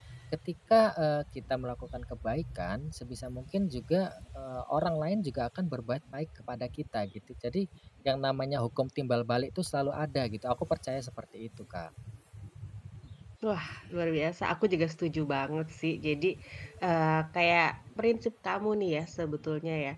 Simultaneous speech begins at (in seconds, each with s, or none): none